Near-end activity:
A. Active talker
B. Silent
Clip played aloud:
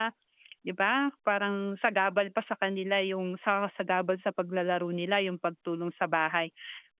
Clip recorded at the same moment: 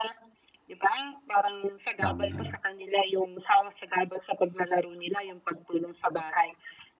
A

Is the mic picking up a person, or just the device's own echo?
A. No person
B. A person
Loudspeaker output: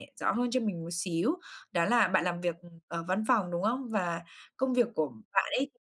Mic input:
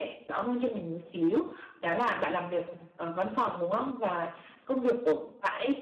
A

